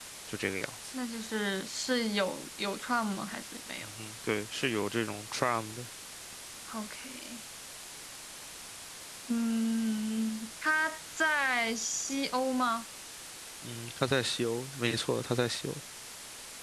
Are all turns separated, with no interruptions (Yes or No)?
Yes